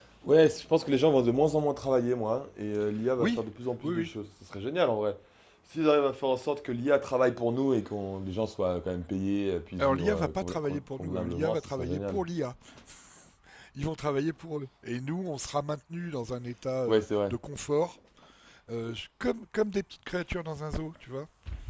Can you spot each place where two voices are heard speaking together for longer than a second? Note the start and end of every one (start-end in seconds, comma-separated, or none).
9.8-12.2